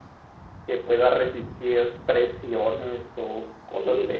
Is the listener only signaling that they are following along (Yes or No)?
No